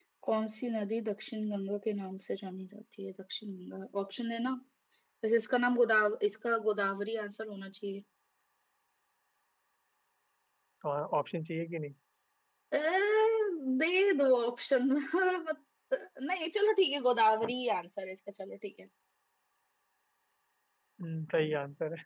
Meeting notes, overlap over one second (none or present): none